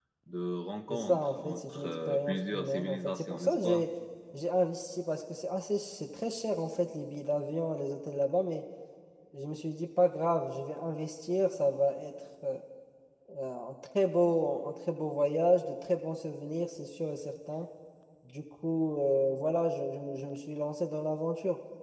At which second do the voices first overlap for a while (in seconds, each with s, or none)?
0.9 s